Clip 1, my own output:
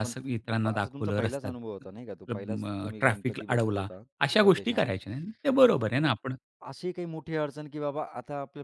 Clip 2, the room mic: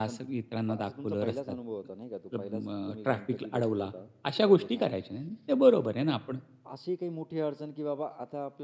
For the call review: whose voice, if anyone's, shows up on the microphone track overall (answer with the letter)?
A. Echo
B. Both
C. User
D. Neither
A